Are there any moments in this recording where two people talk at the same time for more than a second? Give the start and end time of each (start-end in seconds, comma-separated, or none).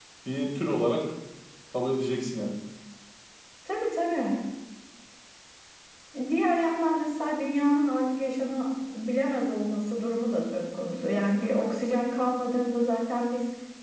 none